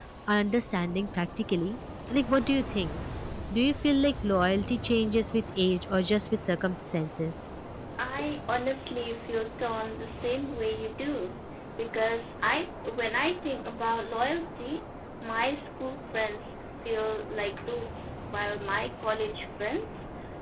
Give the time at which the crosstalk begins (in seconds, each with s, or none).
none